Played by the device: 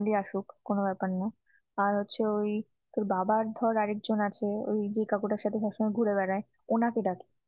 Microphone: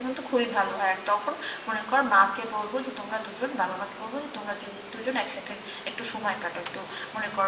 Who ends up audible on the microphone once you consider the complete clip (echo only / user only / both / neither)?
user only